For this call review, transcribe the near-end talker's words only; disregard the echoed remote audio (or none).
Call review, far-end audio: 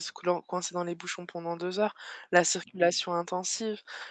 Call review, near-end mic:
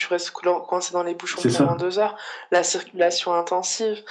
c'est ça.